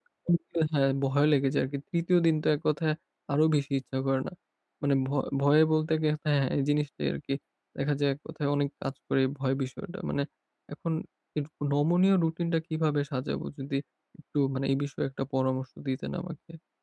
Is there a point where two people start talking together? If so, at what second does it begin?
none

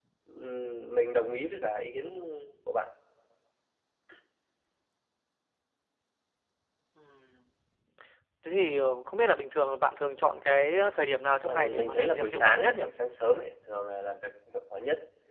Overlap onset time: 11.4 s

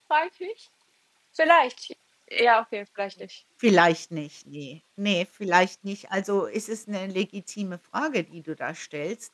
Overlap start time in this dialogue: none

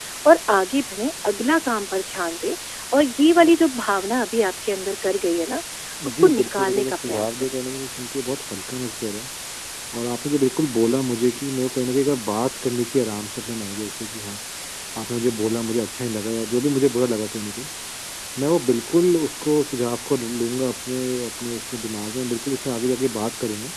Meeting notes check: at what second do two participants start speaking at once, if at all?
6.0 s

